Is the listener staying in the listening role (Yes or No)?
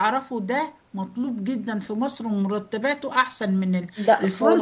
Yes